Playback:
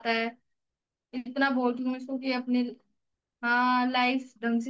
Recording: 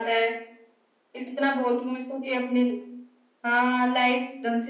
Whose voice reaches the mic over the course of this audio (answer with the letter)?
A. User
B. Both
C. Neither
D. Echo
D